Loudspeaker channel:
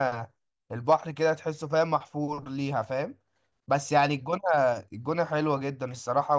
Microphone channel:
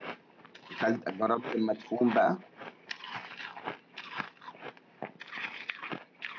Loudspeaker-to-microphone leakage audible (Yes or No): No